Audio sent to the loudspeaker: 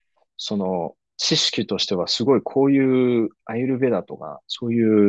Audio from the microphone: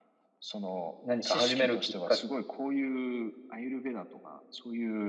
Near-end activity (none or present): present